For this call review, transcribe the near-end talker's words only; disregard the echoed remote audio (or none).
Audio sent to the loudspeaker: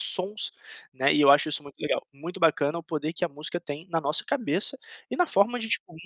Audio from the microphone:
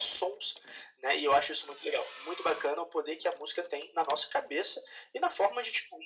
none